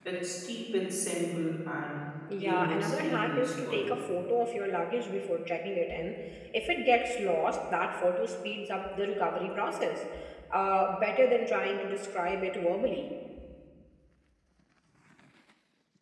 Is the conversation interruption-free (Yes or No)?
No